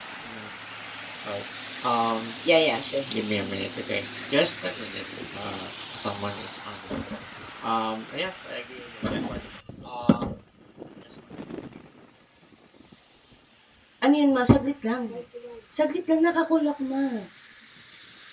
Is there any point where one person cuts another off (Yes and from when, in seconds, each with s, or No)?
No